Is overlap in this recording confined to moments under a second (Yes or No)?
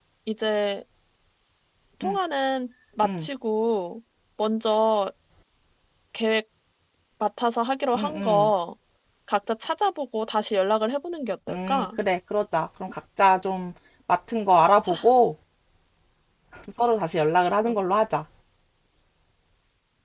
Yes